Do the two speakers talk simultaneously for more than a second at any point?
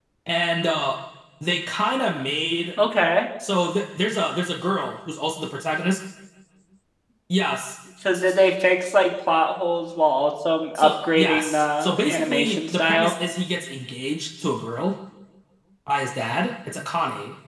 Yes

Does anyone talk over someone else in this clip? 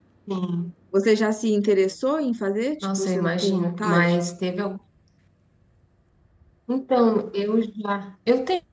Yes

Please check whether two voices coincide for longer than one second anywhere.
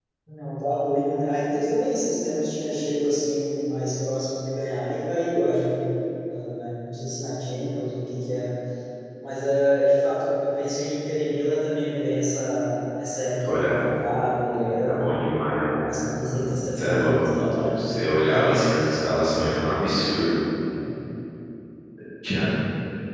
Yes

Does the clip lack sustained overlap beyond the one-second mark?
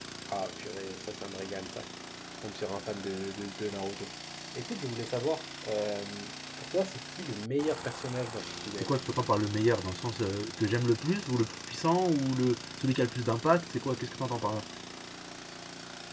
Yes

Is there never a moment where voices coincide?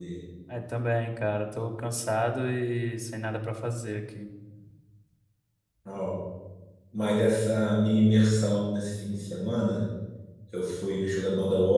Yes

